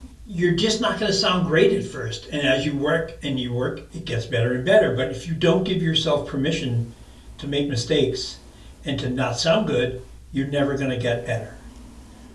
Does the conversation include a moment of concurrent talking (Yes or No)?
No